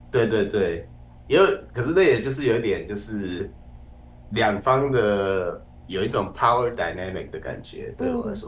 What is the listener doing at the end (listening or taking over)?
taking over